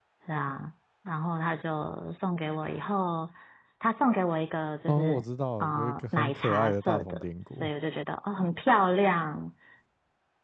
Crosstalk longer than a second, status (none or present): present